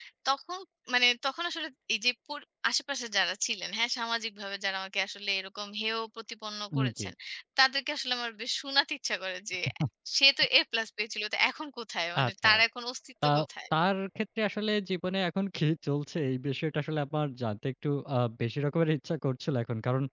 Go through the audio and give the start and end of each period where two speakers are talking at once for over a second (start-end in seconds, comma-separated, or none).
none